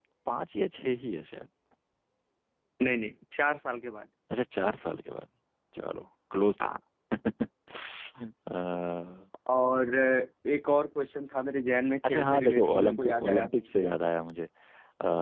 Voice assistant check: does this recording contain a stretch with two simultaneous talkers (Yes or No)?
Yes